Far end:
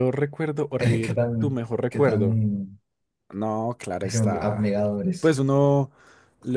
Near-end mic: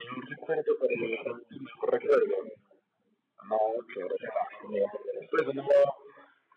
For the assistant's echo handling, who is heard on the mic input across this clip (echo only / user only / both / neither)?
echo only